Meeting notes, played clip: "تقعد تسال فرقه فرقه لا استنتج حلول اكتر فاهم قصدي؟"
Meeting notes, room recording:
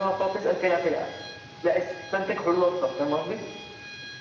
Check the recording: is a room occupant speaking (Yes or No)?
No